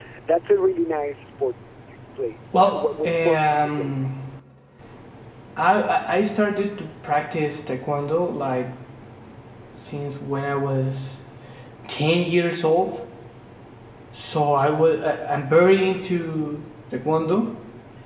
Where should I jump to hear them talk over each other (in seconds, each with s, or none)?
2.5 s